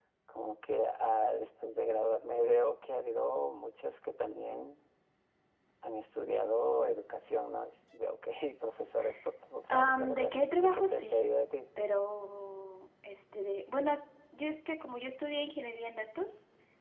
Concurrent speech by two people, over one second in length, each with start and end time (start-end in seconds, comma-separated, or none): 9.7-11.2